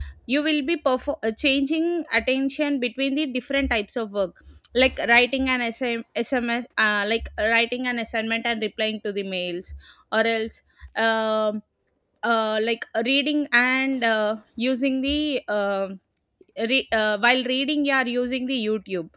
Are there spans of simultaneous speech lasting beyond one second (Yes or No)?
No